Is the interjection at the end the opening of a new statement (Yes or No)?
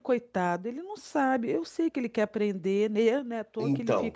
Yes